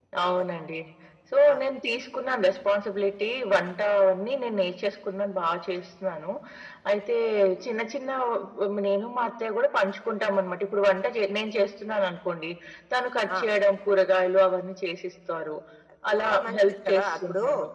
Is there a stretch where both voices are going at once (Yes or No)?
Yes